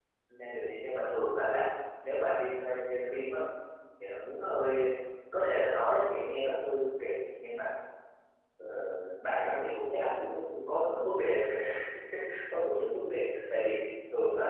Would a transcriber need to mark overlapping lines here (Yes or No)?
No